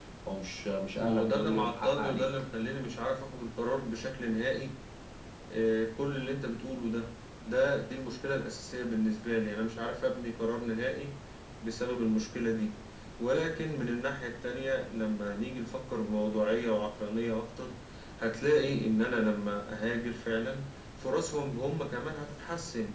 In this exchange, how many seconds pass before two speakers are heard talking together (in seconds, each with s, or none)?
0.9 s